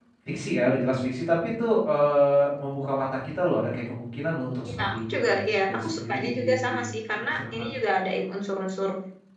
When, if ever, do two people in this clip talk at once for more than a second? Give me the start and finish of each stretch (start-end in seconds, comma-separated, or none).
4.7-6.8